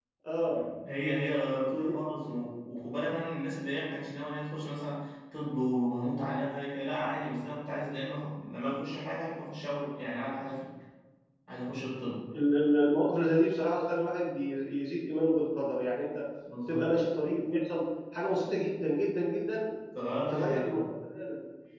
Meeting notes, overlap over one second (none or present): none